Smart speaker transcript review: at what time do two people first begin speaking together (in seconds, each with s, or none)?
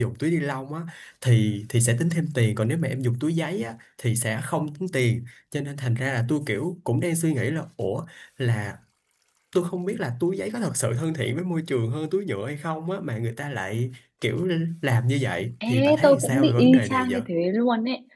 15.6 s